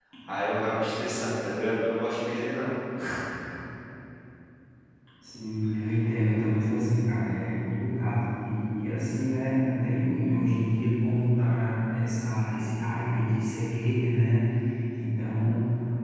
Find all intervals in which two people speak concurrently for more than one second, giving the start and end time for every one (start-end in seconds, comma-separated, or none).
none